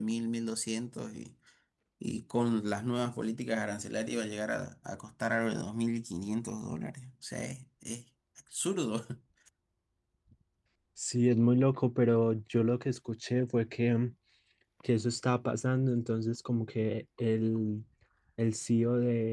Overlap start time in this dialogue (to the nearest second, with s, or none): none